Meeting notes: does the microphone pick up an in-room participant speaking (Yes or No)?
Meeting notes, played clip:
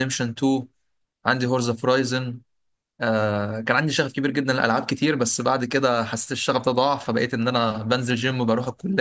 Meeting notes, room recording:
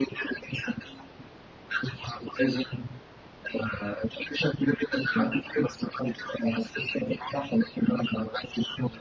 No